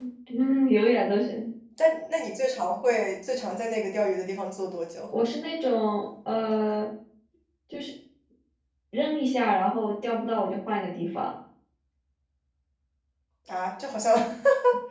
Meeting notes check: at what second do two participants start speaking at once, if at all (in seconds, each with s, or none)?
none